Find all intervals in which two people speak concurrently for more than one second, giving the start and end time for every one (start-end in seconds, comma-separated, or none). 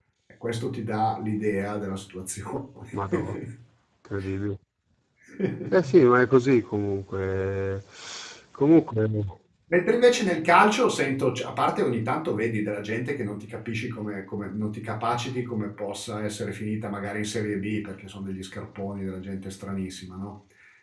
none